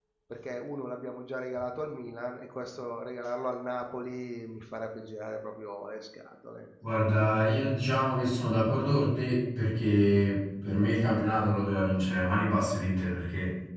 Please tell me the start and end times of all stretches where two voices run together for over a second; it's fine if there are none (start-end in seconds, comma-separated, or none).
none